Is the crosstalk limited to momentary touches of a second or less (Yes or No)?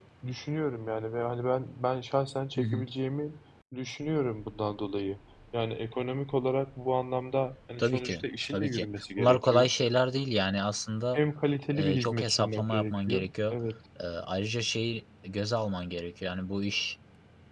No